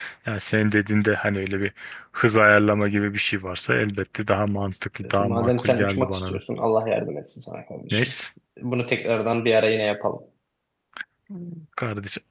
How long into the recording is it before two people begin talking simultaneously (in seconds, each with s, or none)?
5.0 s